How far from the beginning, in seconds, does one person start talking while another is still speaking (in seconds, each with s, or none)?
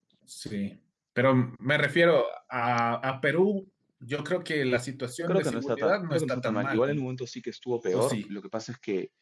5.3 s